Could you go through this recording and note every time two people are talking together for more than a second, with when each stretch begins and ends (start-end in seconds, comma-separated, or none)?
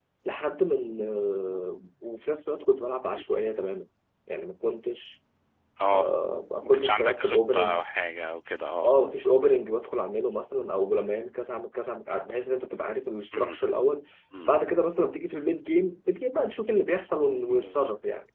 6.6-7.8